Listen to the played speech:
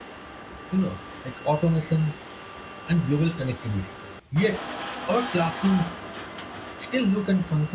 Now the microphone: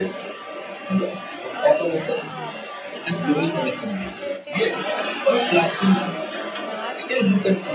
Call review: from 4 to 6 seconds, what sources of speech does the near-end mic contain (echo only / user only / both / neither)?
both